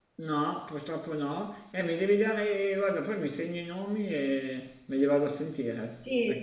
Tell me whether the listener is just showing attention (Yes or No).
No